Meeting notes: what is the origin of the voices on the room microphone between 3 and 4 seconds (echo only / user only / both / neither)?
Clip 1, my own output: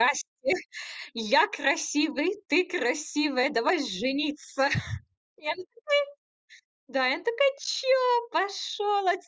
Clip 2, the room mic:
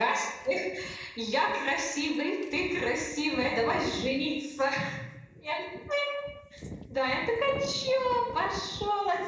echo only